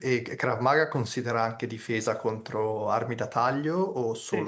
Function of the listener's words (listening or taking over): taking over